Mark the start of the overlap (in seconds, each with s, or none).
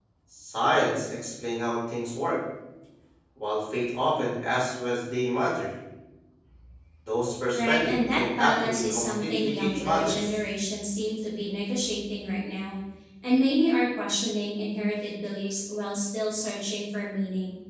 7.5 s